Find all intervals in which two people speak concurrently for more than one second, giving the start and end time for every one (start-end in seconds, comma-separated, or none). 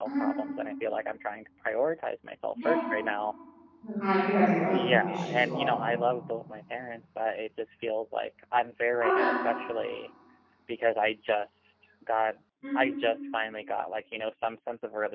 4.6-5.9